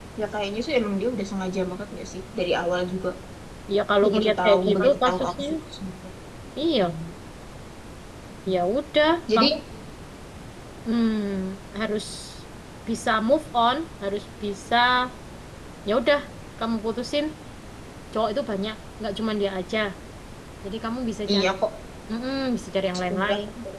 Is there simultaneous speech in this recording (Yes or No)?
Yes